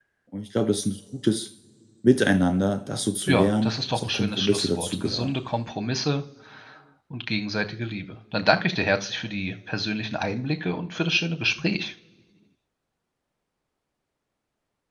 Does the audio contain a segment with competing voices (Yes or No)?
Yes